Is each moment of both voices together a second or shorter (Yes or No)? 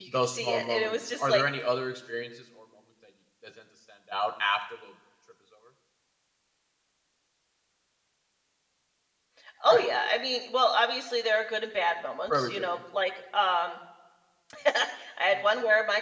No